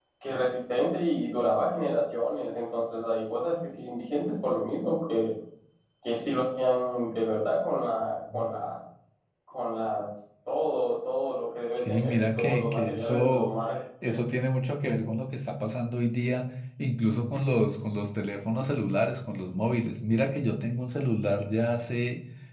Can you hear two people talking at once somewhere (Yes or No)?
Yes